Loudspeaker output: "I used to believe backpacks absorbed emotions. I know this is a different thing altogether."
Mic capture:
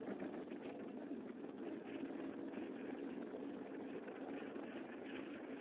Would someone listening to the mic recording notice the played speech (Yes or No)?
No